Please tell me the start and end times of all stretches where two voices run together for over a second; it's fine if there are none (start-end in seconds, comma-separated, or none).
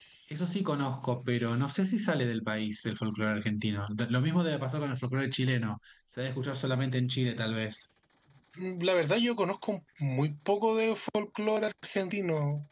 none